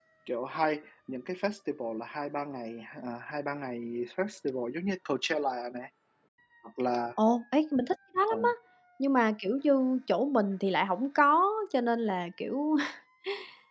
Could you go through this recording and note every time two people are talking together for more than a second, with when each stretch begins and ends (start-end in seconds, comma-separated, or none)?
none